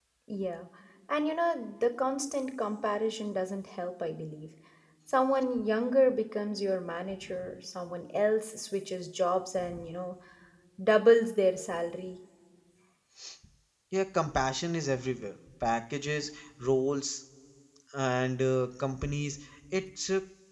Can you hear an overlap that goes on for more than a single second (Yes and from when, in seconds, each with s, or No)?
No